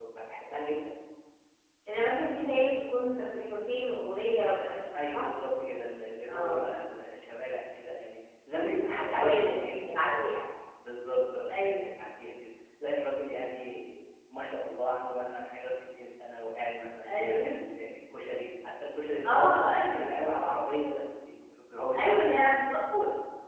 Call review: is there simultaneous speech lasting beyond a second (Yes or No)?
Yes